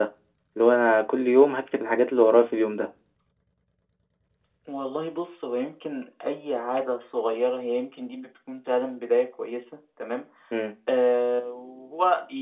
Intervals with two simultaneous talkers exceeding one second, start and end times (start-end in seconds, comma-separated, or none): none